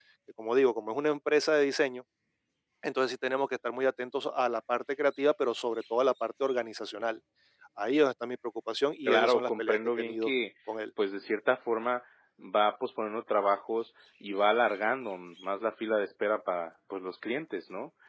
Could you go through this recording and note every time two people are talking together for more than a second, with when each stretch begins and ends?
9.1-10.3

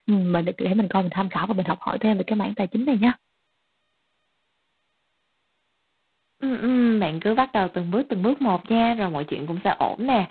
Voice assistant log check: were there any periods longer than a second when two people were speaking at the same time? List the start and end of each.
none

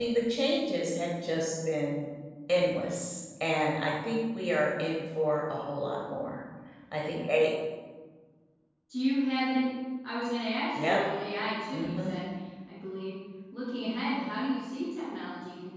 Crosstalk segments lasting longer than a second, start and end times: none

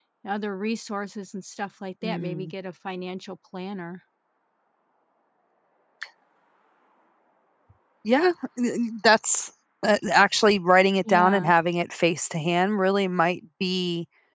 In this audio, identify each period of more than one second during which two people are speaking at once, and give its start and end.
none

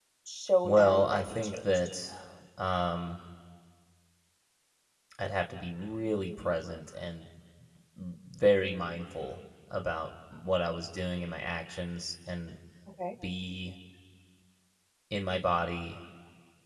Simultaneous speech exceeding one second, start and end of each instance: 0.6-1.9

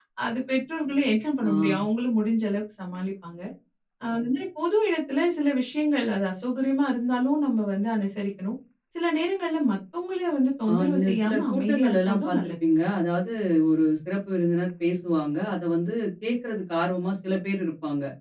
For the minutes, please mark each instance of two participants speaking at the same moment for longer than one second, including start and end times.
10.7-12.5

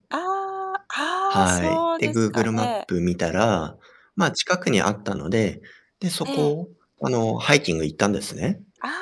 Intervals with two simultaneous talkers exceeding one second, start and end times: 1.4-2.7

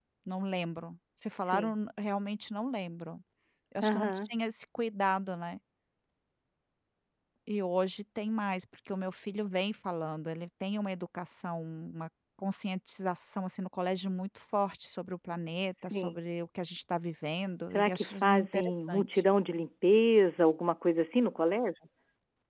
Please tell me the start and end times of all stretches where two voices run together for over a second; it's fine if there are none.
17.7-19.2

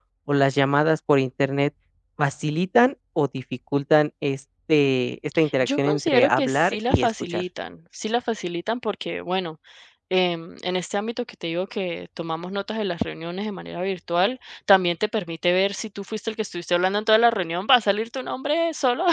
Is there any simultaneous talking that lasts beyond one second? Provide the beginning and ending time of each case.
5.6-7.4

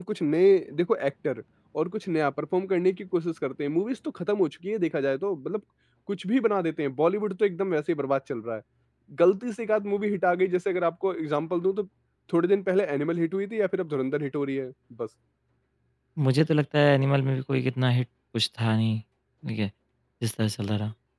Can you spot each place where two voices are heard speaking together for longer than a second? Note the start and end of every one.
none

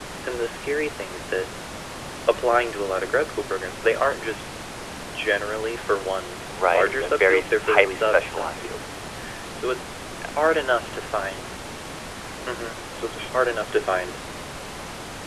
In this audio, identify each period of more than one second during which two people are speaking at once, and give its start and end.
6.7-8.8

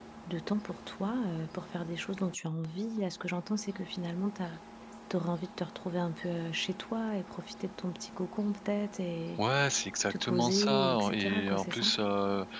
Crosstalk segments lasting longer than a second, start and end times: 10.1-11.9

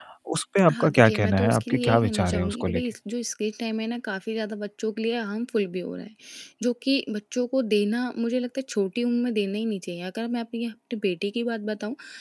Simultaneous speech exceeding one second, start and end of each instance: 0.7-2.8

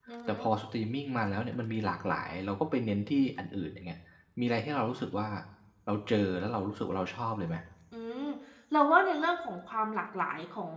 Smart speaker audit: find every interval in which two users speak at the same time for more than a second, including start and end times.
none

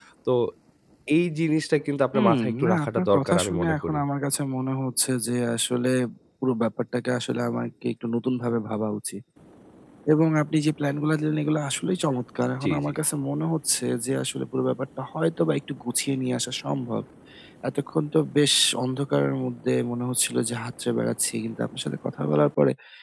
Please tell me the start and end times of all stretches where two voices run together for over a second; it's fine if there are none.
2.1-4.0

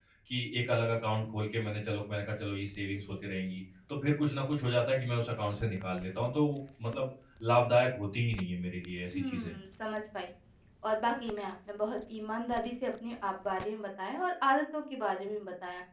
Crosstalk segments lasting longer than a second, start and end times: none

